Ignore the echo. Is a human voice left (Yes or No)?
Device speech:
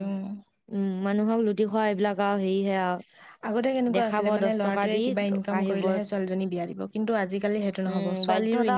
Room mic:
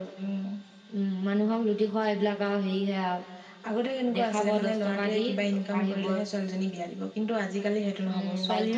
No